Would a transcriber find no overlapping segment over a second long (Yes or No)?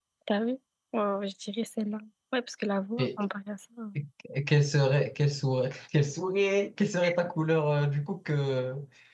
Yes